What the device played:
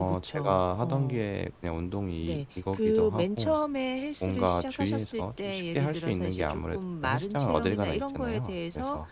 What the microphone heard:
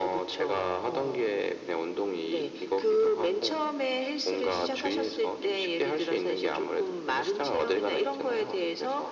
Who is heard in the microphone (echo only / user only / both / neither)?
echo only